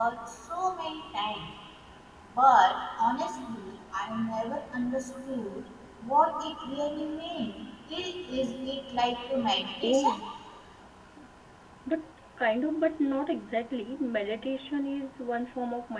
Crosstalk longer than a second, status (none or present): none